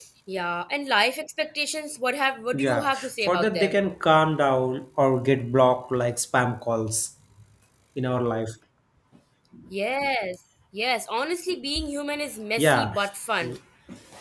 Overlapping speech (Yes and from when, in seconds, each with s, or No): Yes, from 2.5 s